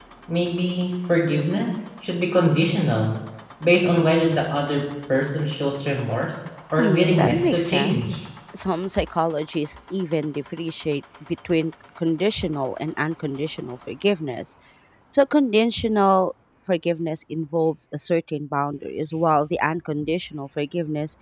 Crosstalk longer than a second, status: present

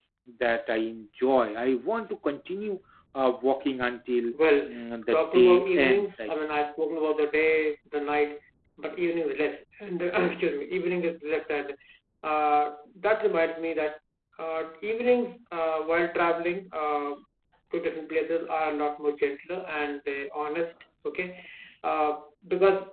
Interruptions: present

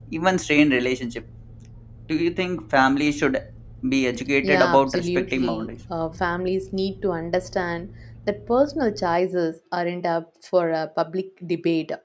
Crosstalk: present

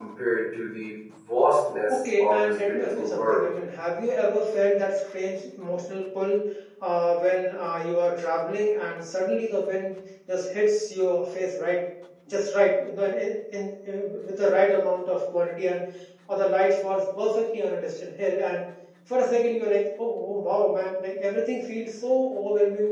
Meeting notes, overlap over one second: present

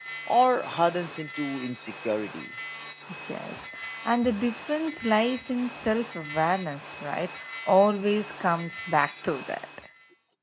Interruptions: none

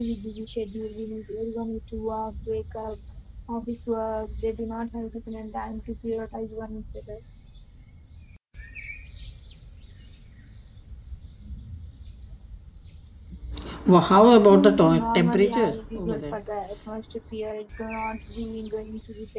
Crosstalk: present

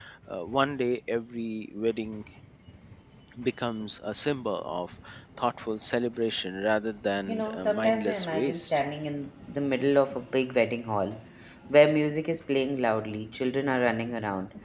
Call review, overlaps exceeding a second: present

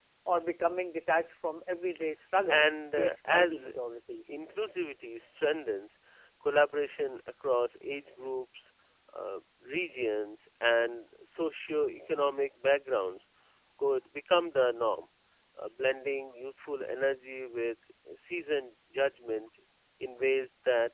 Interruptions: present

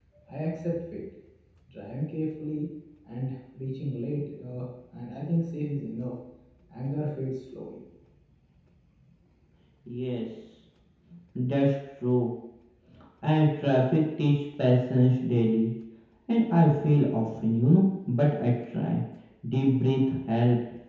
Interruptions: none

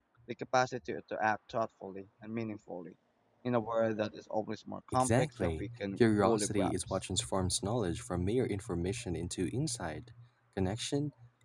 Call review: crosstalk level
present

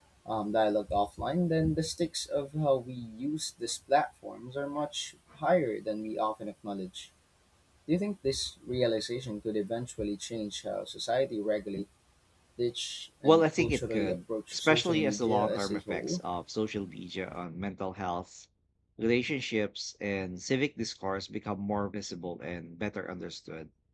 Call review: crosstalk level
present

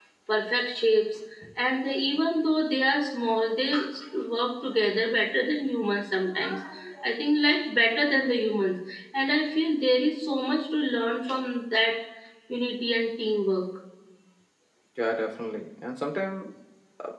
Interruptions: none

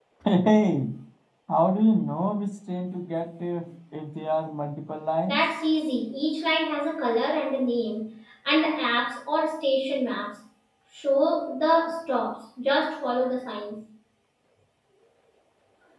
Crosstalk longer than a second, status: none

